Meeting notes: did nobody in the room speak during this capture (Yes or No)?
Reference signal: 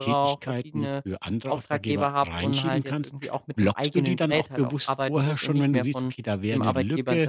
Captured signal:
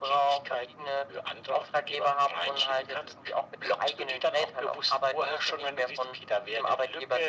Yes